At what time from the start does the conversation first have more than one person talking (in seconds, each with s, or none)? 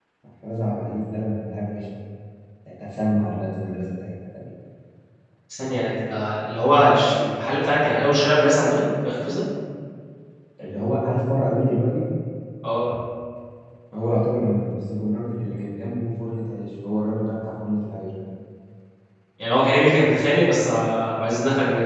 none